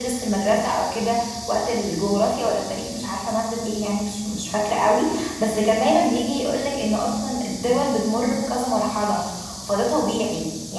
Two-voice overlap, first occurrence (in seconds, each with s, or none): none